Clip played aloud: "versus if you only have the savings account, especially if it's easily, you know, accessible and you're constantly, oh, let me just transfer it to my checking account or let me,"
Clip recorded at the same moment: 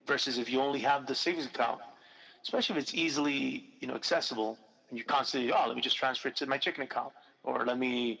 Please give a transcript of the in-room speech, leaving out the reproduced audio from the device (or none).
none